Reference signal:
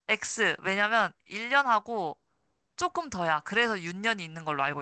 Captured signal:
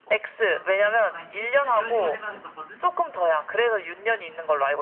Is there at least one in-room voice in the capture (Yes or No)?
Yes